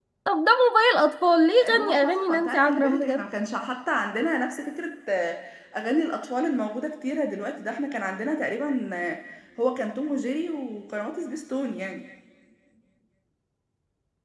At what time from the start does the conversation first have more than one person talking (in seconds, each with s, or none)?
1.6 s